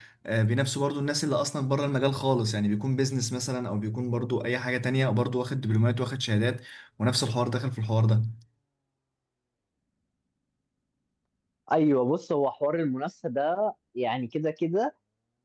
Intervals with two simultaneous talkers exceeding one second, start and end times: none

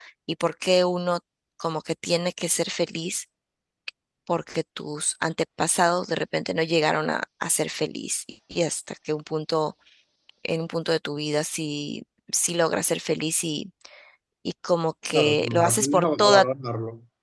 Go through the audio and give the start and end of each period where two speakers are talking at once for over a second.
15.1-16.4

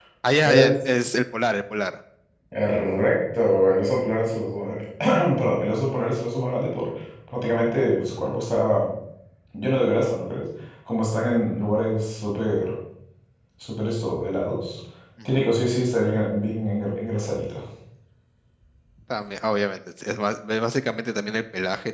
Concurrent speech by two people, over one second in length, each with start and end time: none

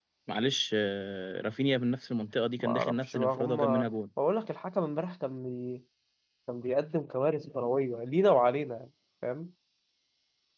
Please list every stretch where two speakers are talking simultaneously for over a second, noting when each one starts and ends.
2.6-3.9

